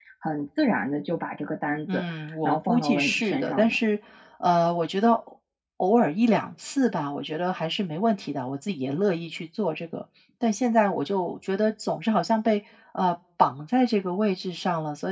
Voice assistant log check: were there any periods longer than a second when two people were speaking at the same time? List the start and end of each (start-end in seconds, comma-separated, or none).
2.4-3.8